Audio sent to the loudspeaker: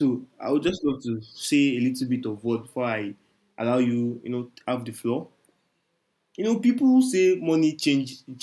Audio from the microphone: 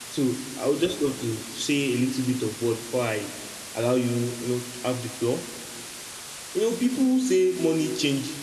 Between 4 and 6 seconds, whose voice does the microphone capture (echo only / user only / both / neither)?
echo only